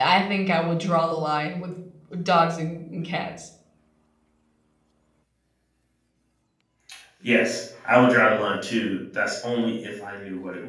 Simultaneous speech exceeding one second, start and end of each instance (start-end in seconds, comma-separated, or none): none